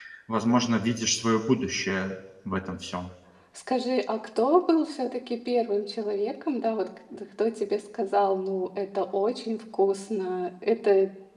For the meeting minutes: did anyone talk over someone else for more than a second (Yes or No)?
No